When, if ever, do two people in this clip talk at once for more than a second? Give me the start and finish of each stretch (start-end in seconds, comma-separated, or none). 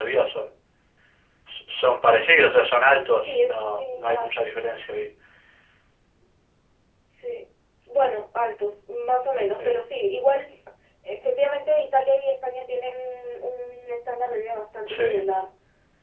3.1-4.3